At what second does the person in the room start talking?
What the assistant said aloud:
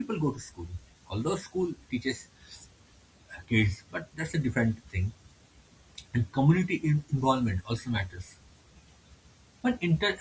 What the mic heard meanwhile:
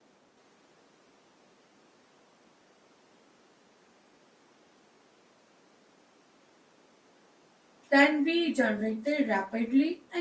8 s

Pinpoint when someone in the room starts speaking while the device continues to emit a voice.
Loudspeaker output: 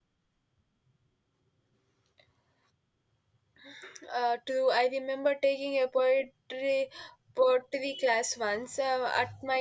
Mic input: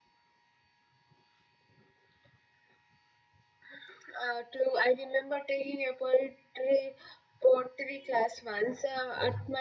none

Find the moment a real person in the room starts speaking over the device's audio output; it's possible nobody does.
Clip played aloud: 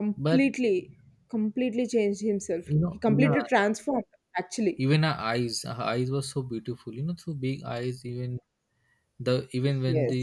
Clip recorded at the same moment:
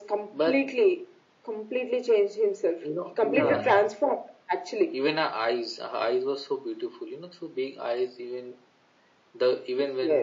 3 s

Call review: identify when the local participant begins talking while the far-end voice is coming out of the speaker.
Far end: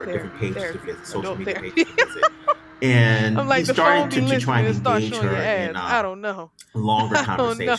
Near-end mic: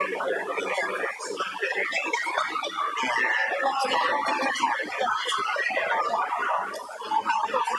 none

